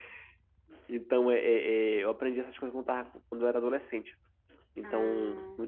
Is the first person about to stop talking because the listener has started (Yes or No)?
No